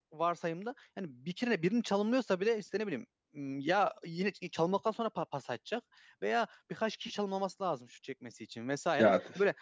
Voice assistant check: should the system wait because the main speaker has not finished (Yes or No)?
Yes